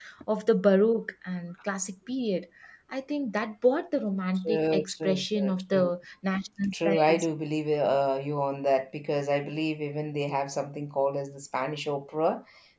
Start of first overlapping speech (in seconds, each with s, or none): 4.5 s